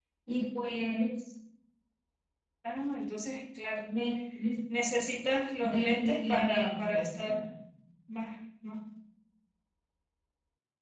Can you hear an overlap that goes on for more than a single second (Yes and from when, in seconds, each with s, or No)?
Yes, from 5.6 s